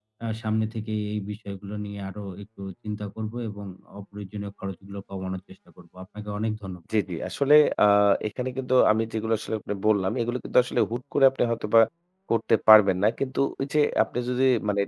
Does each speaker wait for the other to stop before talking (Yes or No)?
Yes